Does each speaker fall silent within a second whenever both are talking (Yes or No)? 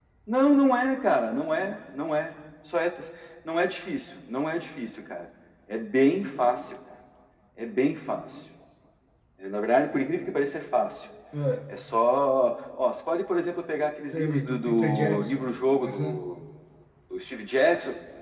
No